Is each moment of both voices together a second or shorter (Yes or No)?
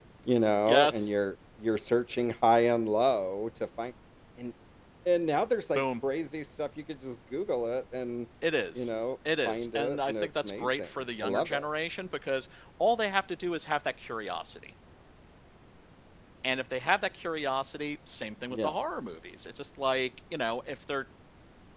No